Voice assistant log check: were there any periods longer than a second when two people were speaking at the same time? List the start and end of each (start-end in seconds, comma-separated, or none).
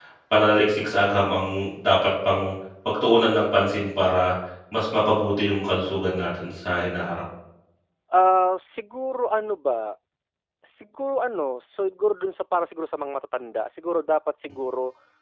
none